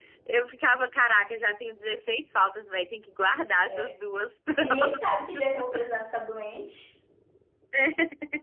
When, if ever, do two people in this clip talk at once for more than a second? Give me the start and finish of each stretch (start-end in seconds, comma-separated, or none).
none